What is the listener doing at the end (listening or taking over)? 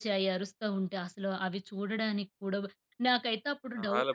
listening